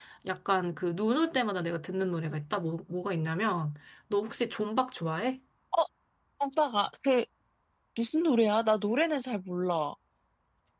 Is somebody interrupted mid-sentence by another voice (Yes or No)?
No